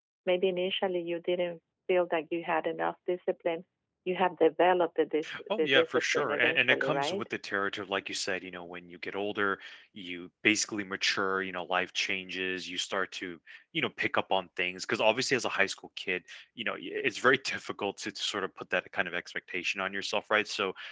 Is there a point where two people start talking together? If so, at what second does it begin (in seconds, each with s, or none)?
5.5 s